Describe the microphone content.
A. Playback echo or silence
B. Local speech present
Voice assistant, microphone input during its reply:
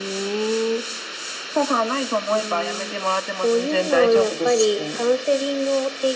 A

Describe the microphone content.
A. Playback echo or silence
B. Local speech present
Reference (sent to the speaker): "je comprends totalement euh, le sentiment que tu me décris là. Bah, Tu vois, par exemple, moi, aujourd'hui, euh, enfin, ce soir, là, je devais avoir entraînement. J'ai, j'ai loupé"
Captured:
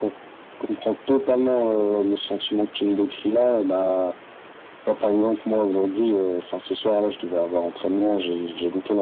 A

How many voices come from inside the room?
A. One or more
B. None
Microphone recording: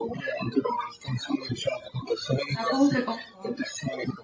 A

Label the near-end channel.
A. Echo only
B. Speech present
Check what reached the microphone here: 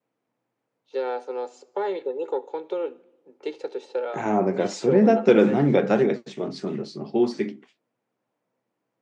B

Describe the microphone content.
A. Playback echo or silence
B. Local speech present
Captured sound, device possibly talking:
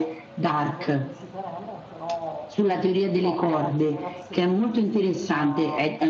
B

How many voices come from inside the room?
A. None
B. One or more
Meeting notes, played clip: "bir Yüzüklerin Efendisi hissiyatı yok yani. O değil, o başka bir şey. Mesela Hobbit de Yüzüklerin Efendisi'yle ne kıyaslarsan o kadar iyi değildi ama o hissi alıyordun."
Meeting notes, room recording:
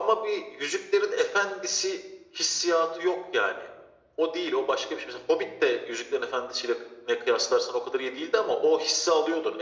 A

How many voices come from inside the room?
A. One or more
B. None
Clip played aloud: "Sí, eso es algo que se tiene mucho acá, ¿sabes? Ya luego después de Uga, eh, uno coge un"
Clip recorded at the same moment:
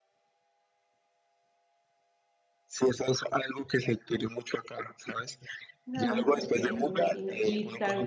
A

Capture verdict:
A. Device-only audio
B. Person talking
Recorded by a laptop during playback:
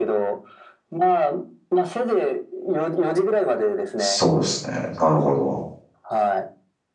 B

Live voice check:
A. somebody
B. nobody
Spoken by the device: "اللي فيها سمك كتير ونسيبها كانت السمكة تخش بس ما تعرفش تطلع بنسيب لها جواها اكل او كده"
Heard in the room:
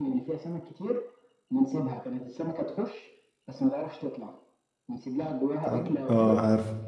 A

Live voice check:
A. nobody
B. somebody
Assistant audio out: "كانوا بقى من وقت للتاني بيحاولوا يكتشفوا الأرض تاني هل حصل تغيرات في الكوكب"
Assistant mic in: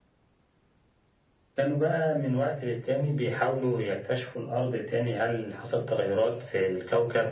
A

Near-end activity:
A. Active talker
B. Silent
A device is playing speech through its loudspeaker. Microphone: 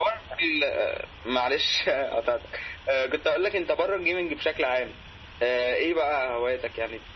B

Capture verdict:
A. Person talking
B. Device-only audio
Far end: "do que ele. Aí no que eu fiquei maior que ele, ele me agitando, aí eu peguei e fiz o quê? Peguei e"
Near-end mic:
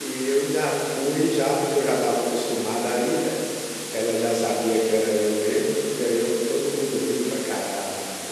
A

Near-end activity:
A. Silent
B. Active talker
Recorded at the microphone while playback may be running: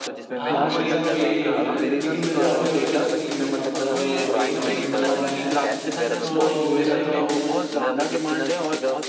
B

